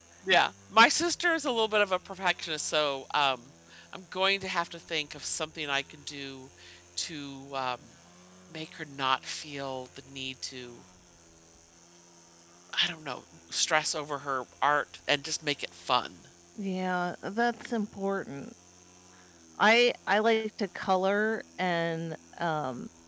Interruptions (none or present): none